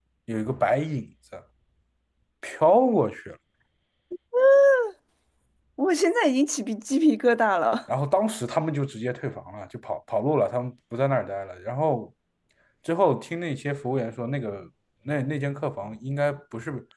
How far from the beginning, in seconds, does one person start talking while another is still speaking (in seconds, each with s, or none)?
none